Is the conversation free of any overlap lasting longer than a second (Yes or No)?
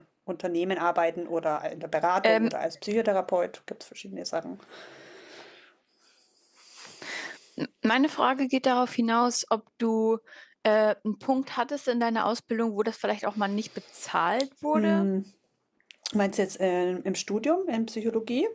Yes